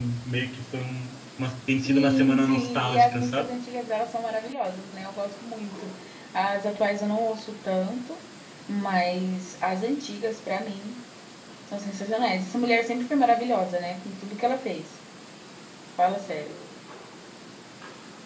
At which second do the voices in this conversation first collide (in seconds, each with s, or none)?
1.8 s